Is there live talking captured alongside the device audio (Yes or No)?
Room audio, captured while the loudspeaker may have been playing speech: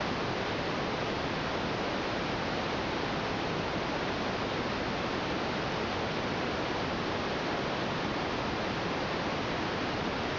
No